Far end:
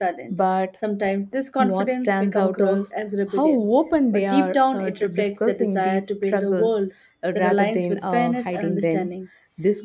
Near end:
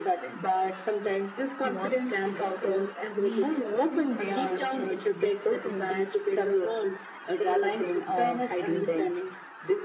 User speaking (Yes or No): Yes